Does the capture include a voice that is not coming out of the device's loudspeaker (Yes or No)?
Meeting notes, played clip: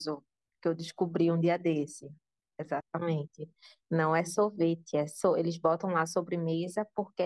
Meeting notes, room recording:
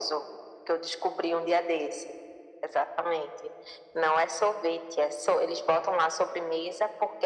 No